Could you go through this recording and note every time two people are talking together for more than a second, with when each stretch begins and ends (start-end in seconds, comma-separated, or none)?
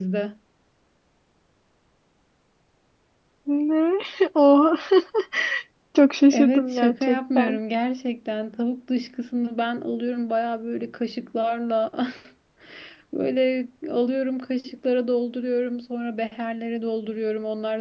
6.3-7.6